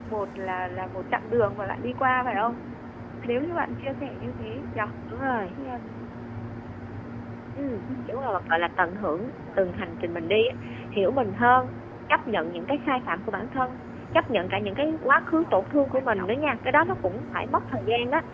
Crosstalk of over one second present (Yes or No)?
No